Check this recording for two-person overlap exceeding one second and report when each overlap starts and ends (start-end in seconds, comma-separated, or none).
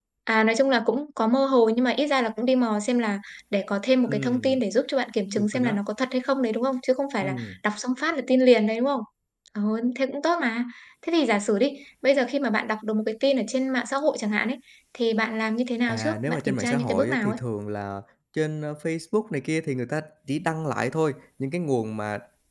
15.9-17.4